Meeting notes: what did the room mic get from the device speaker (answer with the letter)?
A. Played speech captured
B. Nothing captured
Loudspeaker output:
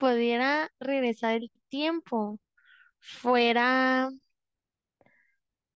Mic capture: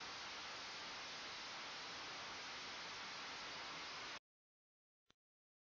B